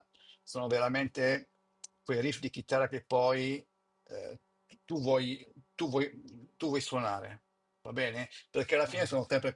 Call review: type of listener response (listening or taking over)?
listening